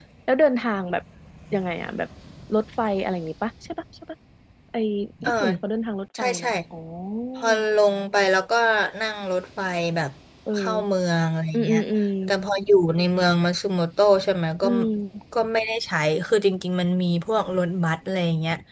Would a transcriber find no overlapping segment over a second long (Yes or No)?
Yes